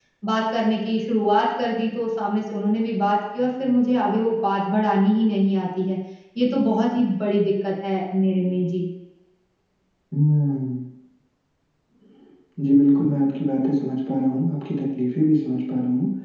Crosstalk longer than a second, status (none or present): none